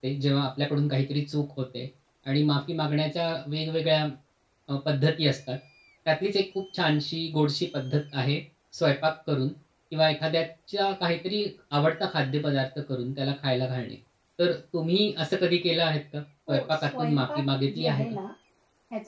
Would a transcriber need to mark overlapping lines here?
Yes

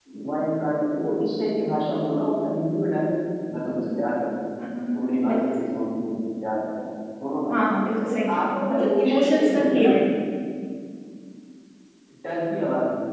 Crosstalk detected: Yes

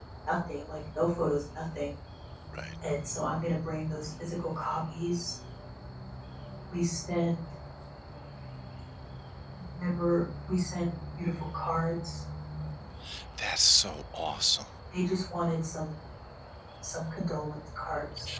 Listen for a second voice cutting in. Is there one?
No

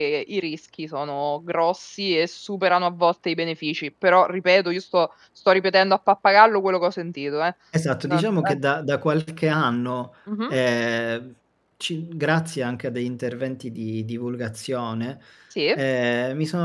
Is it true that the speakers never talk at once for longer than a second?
Yes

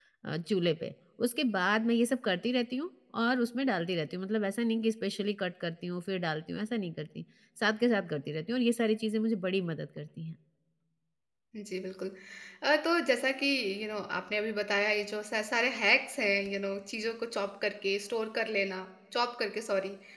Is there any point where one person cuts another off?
No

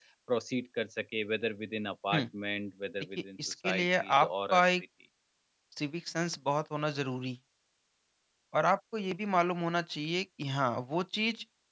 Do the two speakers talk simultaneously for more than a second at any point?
Yes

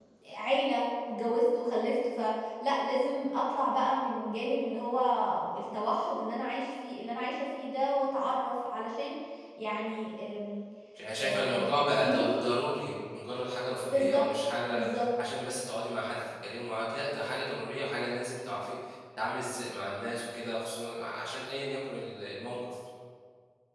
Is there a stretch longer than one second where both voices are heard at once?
Yes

